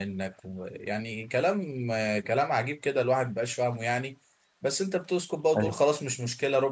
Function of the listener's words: listening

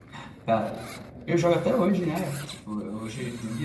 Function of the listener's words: listening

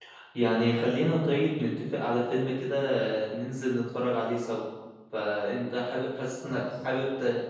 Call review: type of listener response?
listening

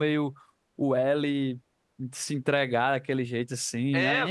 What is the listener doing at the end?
taking over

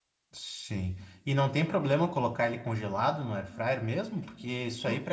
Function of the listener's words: listening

